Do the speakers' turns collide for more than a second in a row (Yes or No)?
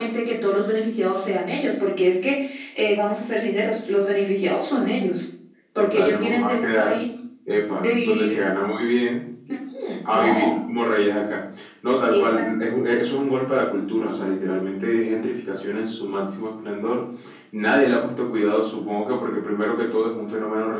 Yes